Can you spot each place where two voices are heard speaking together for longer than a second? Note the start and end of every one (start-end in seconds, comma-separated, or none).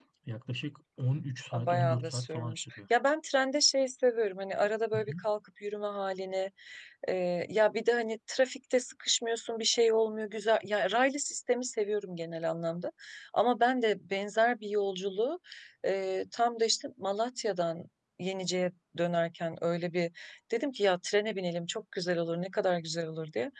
1.5-2.8